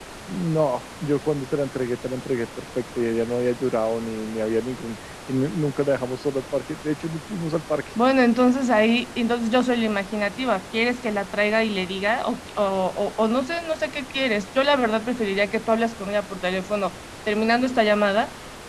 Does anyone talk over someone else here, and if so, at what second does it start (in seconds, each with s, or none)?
none